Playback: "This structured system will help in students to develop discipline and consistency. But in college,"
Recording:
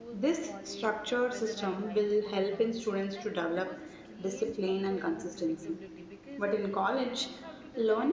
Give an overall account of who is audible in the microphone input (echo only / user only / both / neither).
both